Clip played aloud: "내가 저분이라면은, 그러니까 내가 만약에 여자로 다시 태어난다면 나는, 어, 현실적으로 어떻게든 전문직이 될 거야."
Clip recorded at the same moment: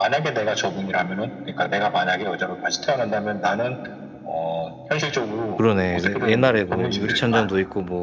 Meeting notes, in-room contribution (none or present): present